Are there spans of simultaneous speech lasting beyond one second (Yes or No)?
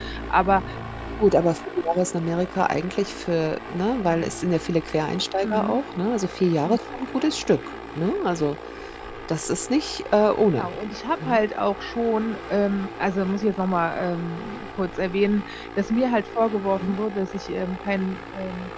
No